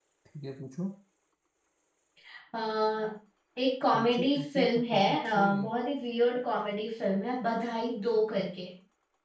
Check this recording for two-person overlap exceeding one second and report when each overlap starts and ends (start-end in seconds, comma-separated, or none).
3.9-5.4